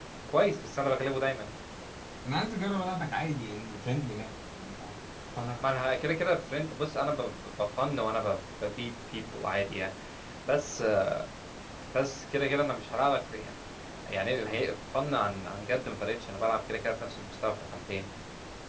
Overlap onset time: none

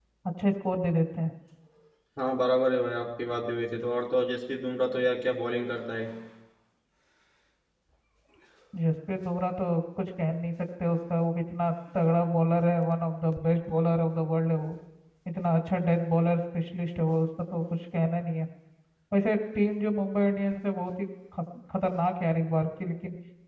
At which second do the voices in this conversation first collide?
none

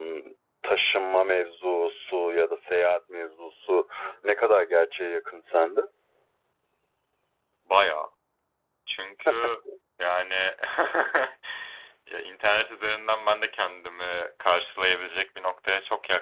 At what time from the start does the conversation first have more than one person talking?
none

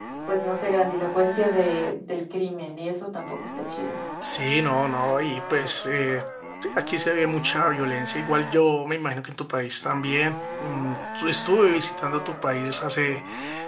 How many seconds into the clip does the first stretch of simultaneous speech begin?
none

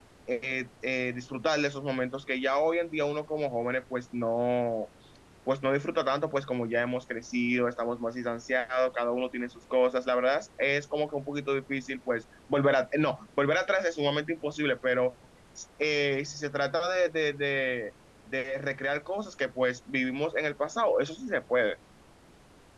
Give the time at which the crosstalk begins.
none

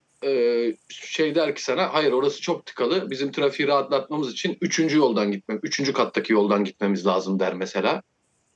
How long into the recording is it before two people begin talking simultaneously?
none

